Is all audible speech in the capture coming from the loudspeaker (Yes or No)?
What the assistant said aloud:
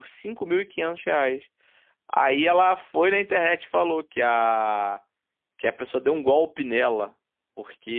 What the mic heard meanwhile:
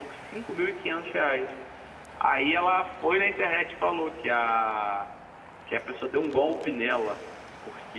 Yes